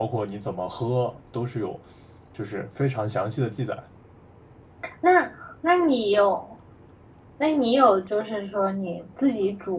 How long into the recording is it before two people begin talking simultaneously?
none

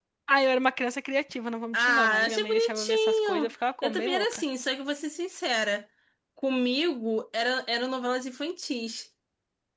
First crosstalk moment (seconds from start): 1.7 s

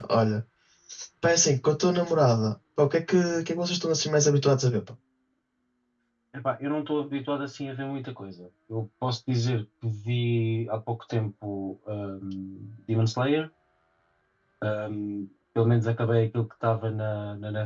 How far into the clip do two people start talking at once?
none

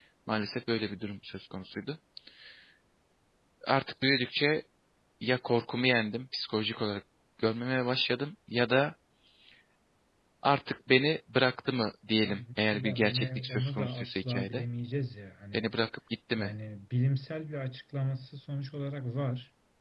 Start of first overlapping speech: 12.2 s

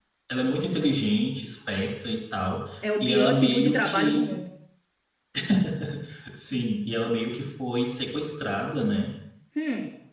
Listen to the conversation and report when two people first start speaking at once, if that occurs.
3.0 s

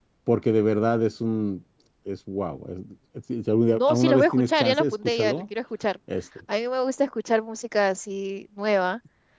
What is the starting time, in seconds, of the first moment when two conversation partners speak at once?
3.7 s

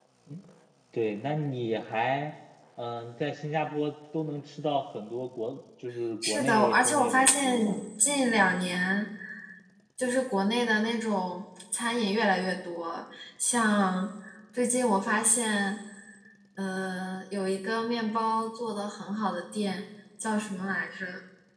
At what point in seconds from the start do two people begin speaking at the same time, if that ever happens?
6.2 s

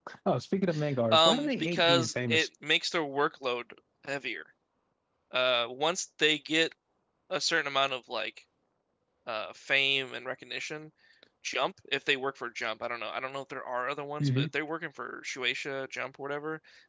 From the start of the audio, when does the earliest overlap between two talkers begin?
1.1 s

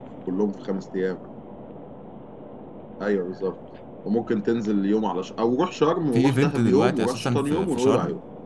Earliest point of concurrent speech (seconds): 6.1 s

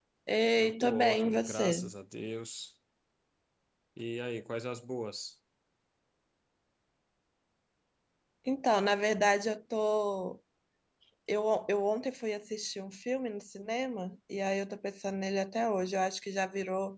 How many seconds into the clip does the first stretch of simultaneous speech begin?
0.6 s

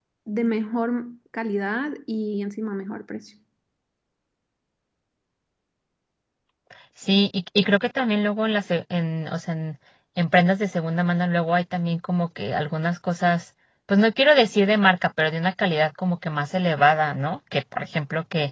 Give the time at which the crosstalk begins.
none

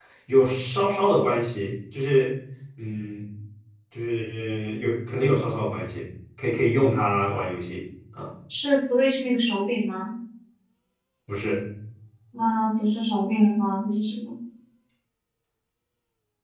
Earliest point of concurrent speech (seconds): none

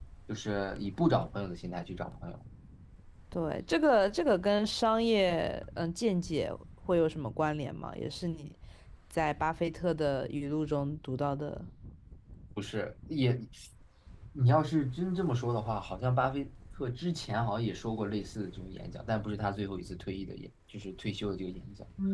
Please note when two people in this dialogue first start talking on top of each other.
none

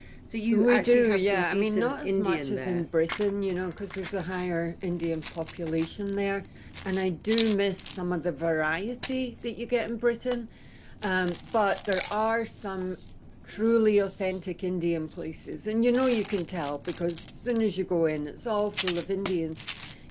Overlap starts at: 0.5 s

